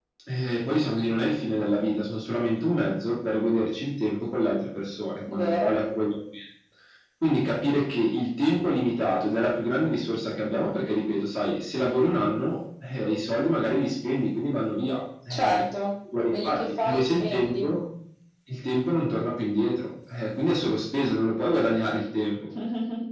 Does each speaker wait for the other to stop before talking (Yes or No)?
No